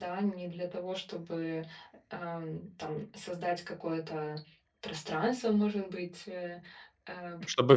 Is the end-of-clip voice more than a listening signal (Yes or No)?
Yes